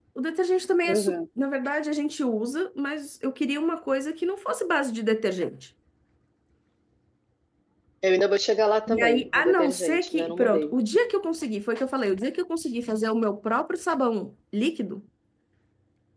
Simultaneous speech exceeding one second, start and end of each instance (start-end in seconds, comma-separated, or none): 8.9-10.8